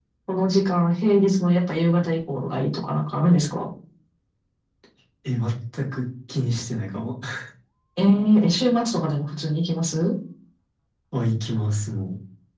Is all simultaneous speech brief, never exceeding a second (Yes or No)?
Yes